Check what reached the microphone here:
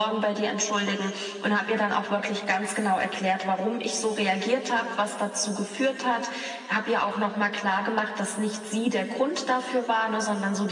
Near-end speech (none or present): none